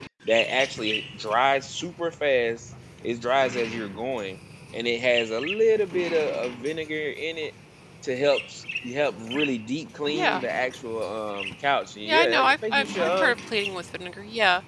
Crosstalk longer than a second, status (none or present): present